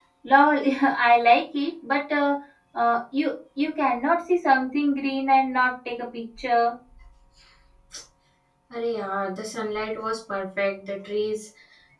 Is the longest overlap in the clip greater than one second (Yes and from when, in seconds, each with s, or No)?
No